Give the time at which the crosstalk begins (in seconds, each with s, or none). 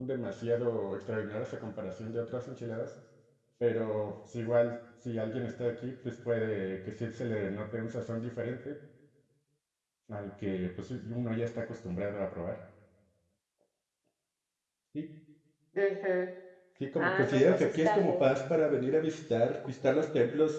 17.0 s